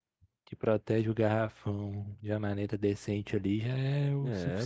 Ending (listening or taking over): taking over